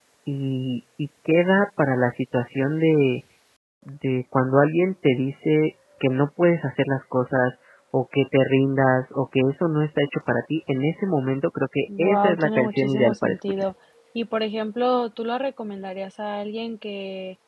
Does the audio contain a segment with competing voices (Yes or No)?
Yes